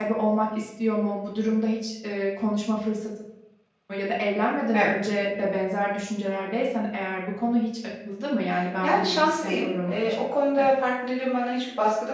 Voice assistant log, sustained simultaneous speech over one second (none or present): present